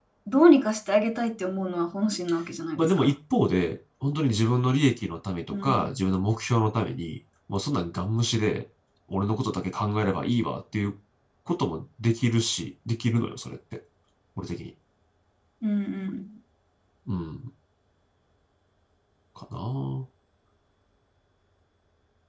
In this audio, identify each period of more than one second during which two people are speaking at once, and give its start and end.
none

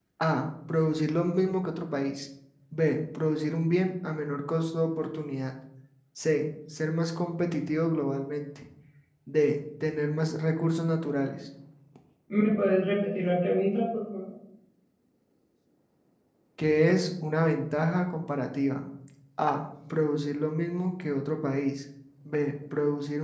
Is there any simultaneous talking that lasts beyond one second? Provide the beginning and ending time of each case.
none

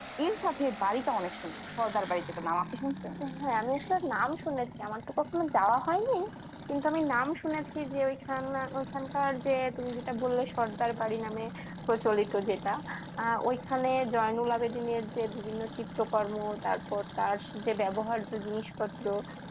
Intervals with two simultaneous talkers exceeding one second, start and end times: none

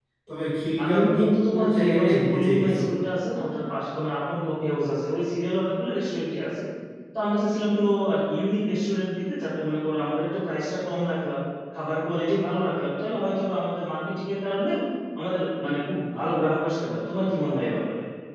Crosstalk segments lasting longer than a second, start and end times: 0.8-2.8

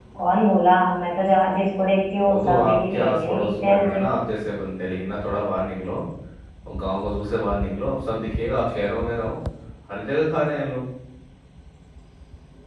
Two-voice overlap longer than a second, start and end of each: 2.2-4.0

